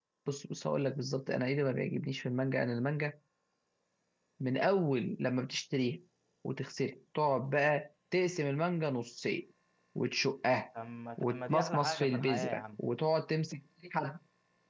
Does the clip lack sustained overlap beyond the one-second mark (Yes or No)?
No